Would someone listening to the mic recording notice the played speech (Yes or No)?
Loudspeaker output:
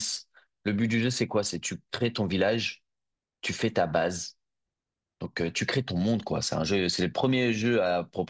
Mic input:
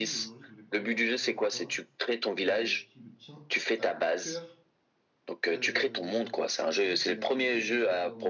Yes